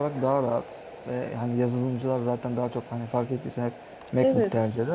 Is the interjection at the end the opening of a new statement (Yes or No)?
No